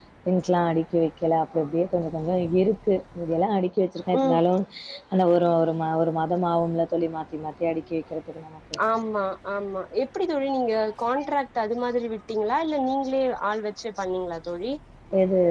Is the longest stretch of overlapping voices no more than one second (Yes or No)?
Yes